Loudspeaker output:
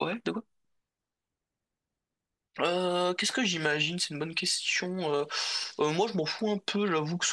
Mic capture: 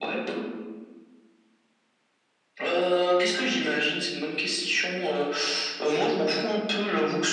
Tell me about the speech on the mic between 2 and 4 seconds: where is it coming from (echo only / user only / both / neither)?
echo only